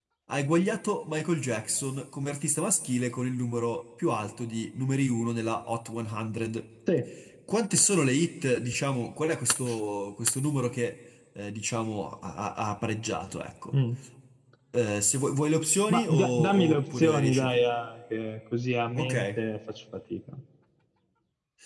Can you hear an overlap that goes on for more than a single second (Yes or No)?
Yes